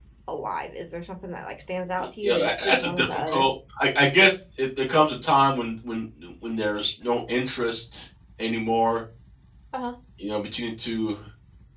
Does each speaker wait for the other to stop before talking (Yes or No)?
No